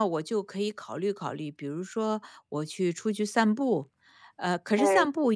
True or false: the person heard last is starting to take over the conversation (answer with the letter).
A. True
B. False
B